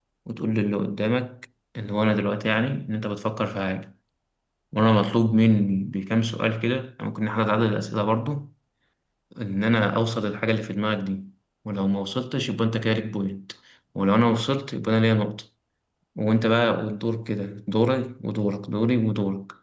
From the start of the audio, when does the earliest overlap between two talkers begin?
none

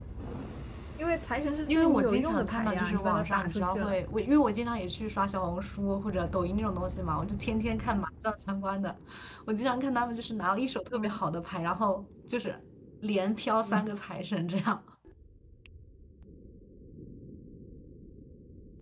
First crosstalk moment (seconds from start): 1.7 s

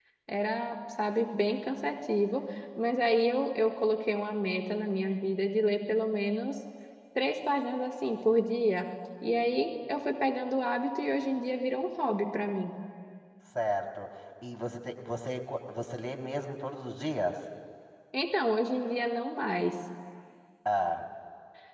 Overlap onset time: none

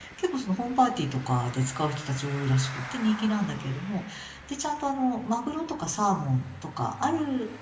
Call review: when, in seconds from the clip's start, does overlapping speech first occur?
none

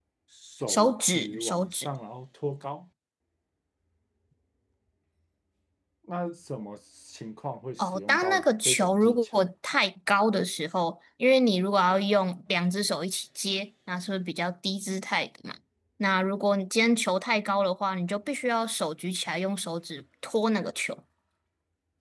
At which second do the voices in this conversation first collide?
0.7 s

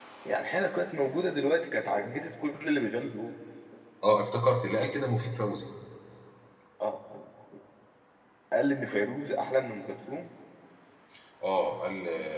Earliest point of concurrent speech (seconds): none

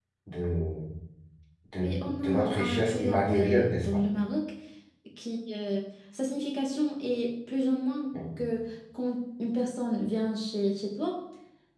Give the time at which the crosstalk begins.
1.8 s

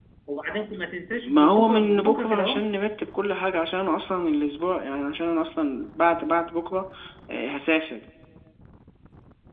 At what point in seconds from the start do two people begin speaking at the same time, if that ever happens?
1.2 s

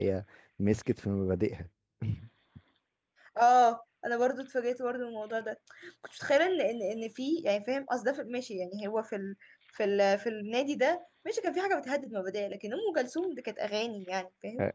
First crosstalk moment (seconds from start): none

